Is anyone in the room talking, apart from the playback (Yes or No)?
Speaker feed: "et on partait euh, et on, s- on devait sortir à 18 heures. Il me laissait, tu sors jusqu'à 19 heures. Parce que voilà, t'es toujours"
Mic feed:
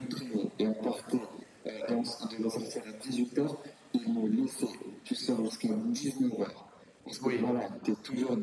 Yes